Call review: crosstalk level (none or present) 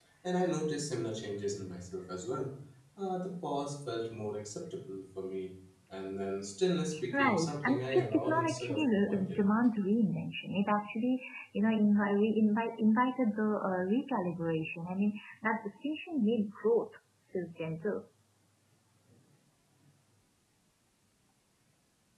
present